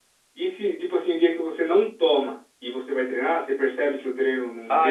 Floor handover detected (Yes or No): Yes